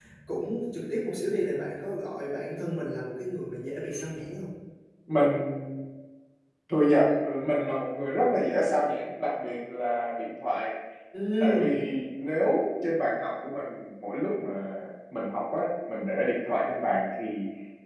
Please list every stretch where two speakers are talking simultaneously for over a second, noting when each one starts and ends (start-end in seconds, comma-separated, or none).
none